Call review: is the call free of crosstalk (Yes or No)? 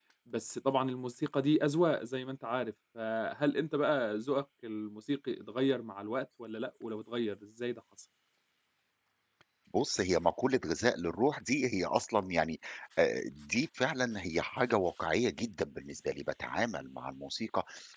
Yes